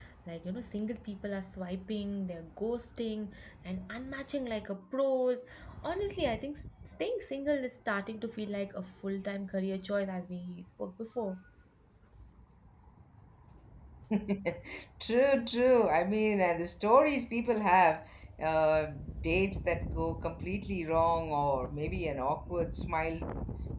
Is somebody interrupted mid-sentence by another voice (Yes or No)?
No